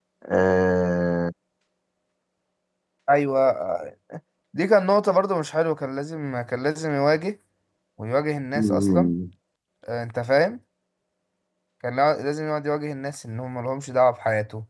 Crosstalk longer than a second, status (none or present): none